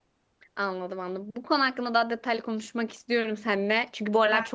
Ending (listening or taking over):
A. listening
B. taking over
A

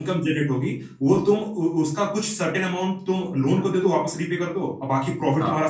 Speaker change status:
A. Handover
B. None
B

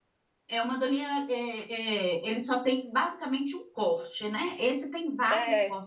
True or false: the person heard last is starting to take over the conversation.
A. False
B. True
A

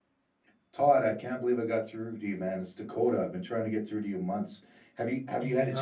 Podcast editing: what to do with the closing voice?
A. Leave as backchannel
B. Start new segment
B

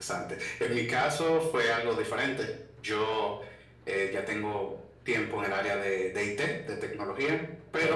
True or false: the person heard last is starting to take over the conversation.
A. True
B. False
B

